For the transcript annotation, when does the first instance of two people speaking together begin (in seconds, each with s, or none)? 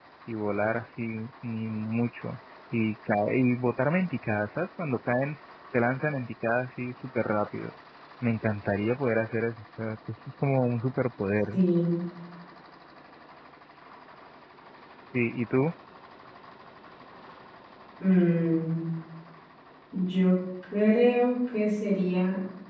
none